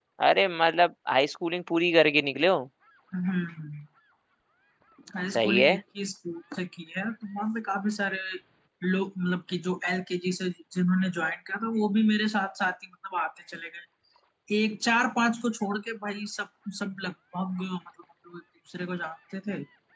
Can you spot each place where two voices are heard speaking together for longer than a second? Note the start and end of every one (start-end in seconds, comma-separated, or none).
none